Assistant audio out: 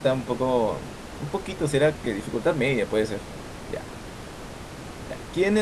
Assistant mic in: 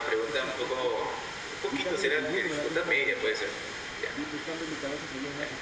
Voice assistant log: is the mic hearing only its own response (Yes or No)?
No